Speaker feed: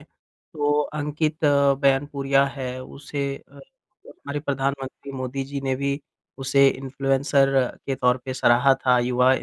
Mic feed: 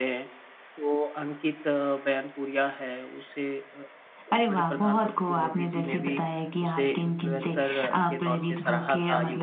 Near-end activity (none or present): present